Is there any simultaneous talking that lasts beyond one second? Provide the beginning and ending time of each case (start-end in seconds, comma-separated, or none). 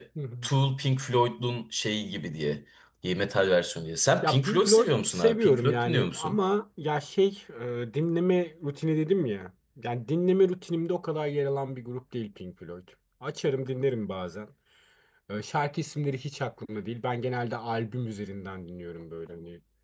4.2-6.4